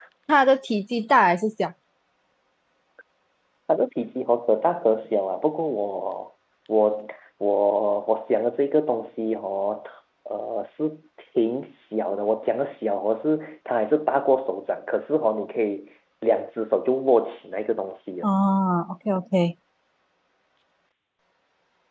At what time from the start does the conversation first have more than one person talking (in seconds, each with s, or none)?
none